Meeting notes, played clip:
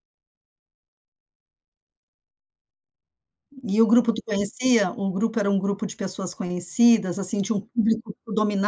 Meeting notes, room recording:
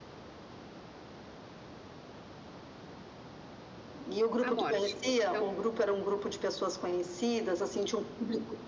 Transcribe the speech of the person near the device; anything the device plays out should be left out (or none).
a morte. Então